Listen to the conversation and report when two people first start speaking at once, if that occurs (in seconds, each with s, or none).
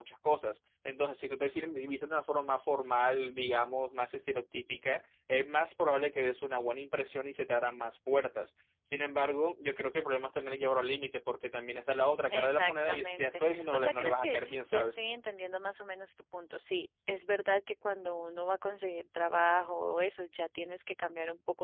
12.3 s